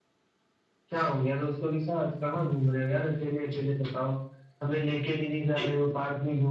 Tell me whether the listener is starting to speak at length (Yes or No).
No